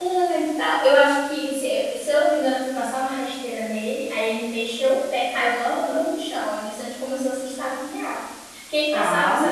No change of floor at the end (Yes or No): Yes